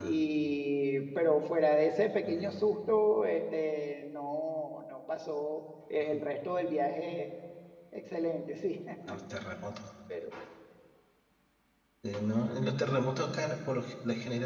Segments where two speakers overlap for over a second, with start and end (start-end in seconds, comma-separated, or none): none